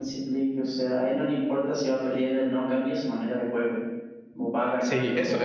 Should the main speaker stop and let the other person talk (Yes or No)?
Yes